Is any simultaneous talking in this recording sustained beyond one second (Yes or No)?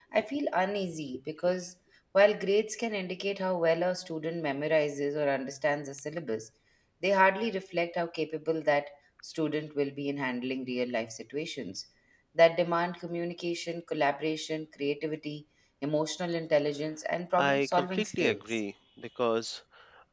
Yes